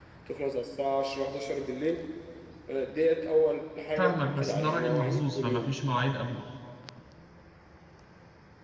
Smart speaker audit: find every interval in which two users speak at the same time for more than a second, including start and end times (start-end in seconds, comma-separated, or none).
4.0-5.7